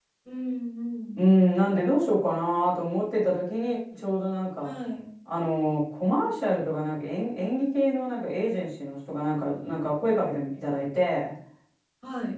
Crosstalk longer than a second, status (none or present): none